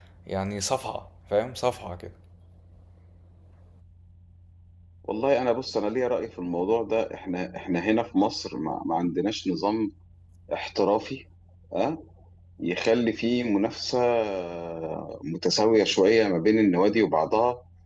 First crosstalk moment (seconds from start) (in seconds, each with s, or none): none